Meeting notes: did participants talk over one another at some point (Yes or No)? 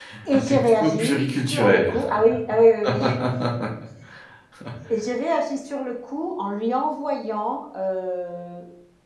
Yes